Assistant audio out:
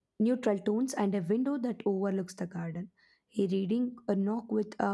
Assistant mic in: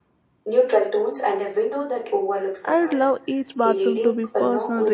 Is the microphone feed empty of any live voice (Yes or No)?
No